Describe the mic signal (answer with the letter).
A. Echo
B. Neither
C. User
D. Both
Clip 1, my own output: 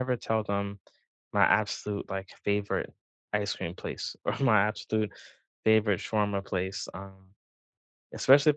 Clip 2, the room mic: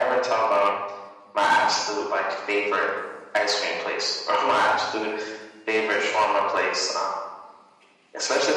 A